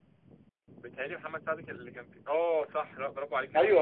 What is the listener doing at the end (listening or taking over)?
taking over